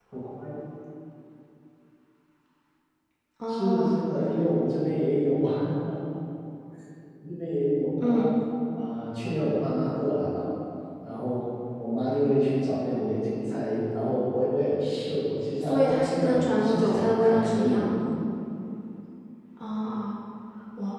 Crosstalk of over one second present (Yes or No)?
Yes